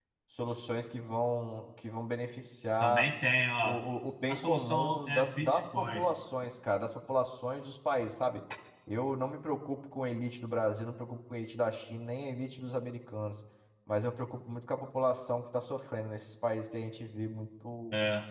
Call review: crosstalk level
present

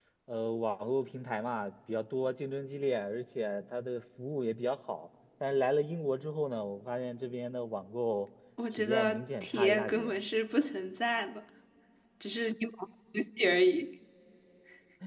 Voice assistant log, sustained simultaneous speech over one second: present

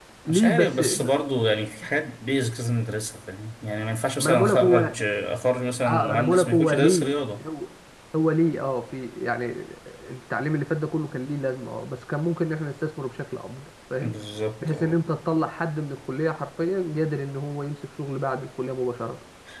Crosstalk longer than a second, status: present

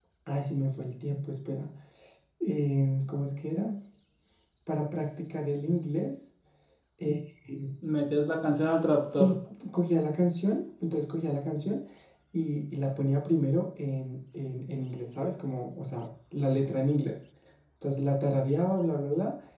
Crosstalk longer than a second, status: none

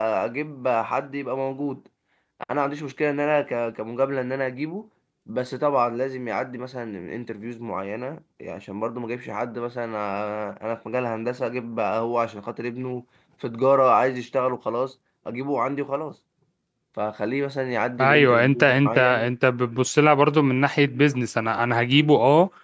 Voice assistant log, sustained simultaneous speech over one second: present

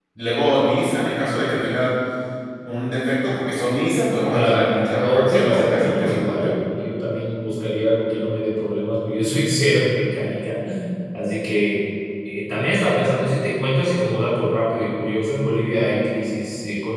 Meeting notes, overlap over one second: present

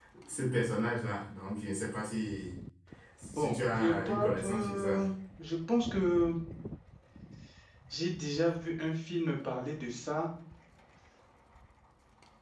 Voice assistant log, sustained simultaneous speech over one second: present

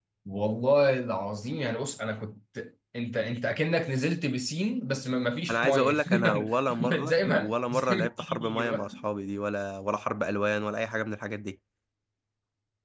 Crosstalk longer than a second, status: present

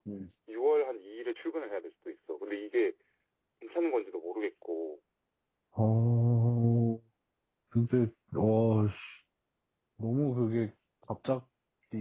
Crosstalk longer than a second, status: none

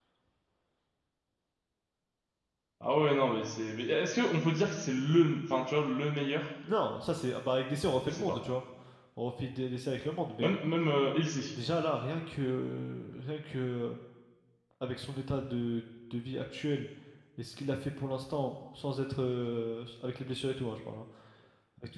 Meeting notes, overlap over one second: none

